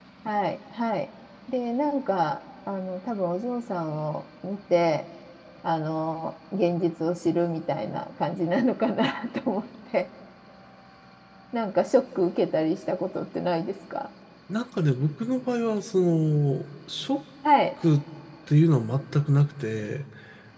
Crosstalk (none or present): none